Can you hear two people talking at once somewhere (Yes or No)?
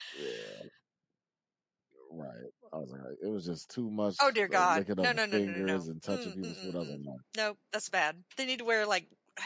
Yes